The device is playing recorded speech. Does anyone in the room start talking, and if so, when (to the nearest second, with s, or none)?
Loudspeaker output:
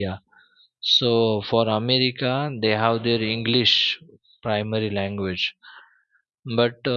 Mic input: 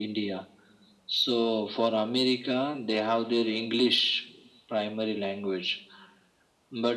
none